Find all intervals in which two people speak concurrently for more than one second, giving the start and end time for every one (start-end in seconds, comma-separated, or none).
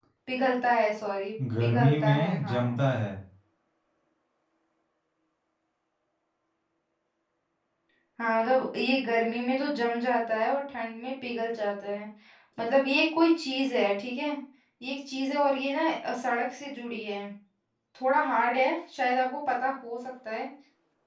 1.6-2.8